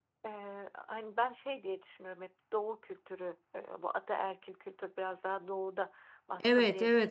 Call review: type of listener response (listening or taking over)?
taking over